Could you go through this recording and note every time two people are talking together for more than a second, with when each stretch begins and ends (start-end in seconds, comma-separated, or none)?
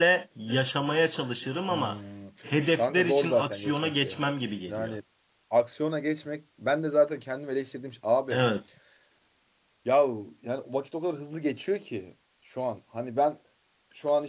2.8-4.2